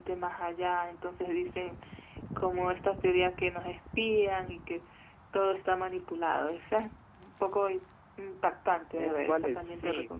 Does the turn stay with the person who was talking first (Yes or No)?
No